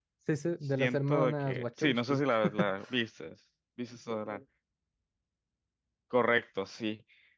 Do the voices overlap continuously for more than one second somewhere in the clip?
Yes, from 0.8 s

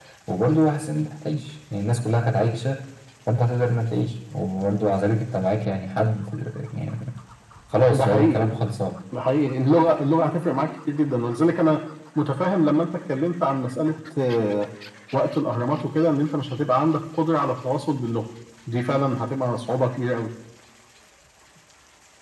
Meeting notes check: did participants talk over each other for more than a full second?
No

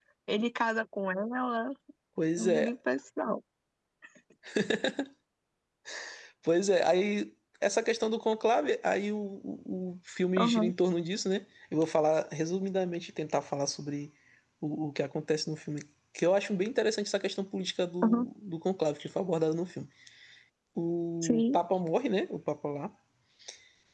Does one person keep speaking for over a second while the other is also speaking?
No

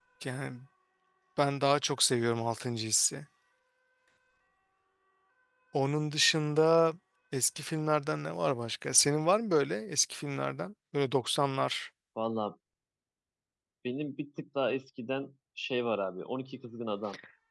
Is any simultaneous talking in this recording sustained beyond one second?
No

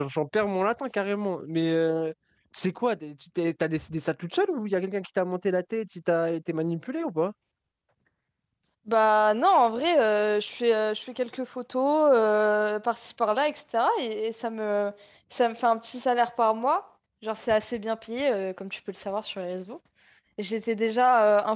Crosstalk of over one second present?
No

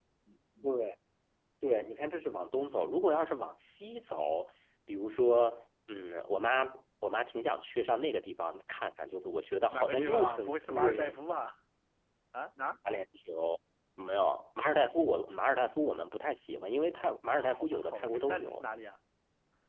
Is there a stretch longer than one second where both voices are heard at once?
Yes, from 9.7 s

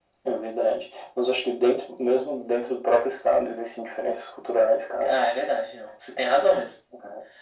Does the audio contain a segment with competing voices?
No

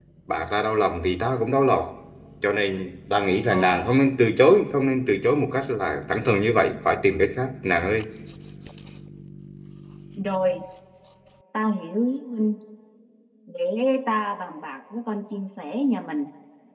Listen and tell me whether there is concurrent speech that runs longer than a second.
No

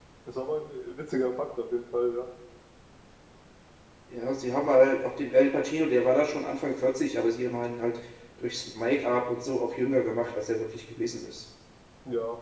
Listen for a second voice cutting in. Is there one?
No

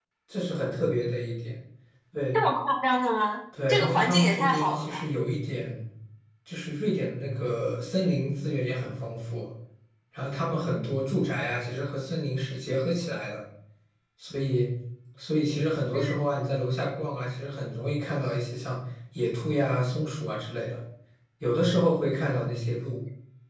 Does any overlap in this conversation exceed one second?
Yes, from 3.5 s

